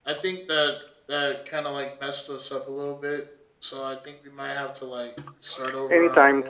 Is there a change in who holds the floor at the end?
Yes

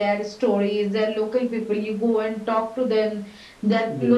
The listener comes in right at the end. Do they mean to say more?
No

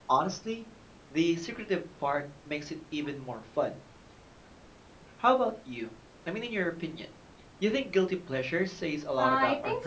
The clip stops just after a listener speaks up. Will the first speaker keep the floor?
No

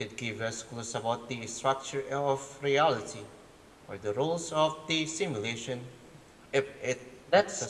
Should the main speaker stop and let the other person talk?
Yes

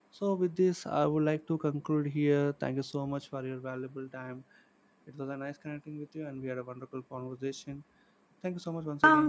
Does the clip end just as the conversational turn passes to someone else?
Yes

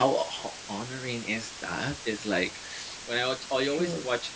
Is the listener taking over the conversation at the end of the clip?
No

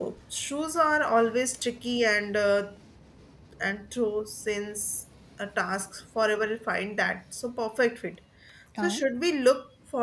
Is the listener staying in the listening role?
Yes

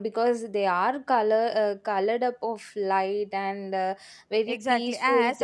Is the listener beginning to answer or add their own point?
Yes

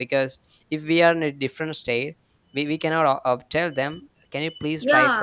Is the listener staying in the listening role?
No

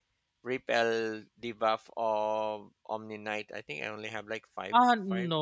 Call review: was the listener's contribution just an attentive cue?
No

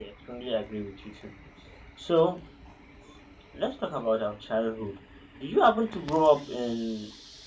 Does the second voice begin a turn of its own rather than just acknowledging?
No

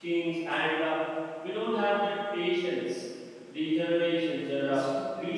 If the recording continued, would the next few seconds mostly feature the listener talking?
No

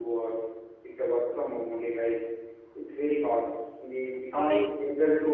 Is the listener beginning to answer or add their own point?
No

